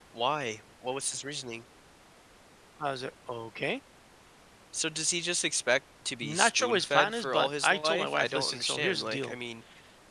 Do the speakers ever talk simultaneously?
Yes, from 6.2 s

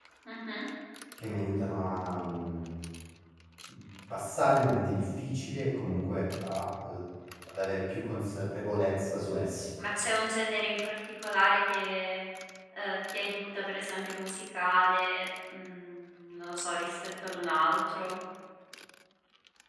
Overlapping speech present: No

